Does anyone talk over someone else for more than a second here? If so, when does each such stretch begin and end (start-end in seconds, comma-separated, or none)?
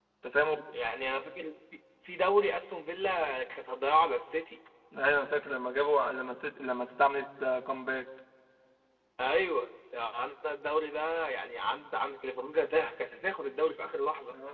none